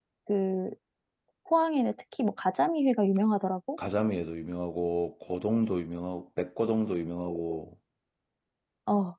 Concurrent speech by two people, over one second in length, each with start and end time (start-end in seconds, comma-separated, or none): none